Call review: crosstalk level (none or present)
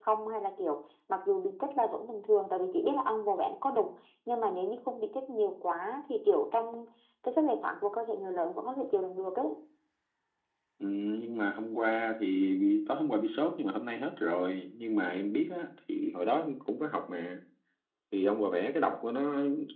none